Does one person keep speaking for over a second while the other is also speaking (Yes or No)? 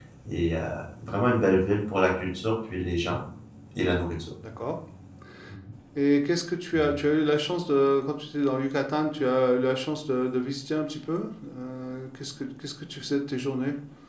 No